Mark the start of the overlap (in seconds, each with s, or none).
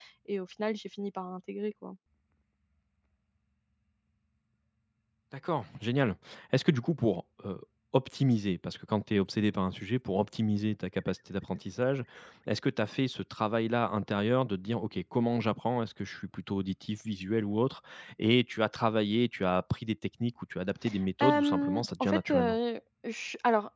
21.2 s